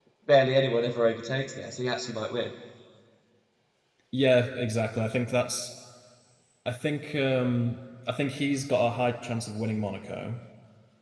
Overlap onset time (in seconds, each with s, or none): none